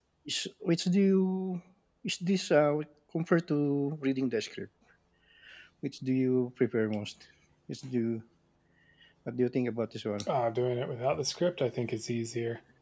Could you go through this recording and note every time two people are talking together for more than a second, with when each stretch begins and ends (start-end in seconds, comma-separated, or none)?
none